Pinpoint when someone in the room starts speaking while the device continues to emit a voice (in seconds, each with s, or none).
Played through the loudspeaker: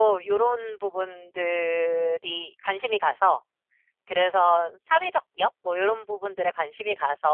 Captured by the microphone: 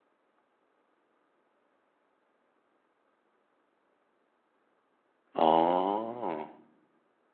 5.3 s